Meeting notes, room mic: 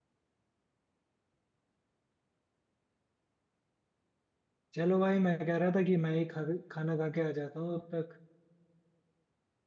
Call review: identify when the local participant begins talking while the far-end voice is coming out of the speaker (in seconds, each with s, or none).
4.7 s